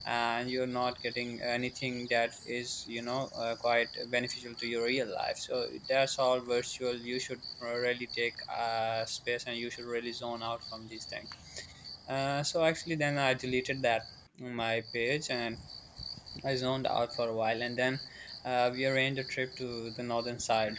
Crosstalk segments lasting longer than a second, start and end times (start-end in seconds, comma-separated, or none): none